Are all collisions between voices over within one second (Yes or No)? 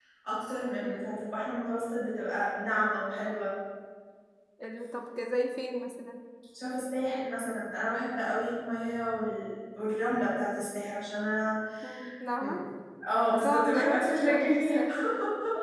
No